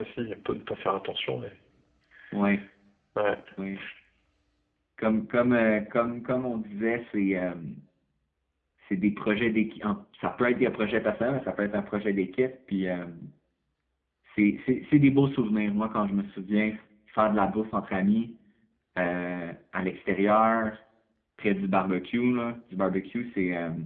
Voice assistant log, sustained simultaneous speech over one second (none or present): none